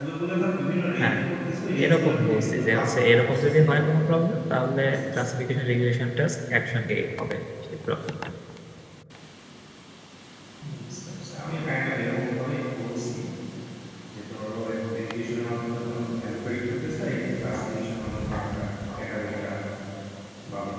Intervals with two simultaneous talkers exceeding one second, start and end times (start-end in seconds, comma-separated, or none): 1.8-3.8